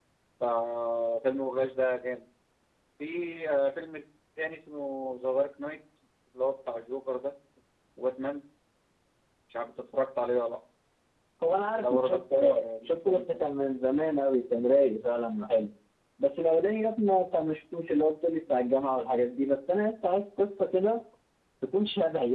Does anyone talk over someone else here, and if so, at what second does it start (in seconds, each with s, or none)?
11.8 s